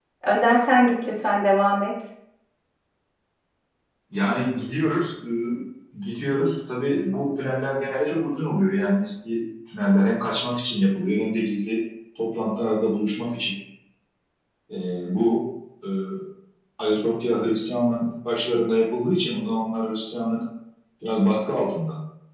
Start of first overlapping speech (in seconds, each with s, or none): none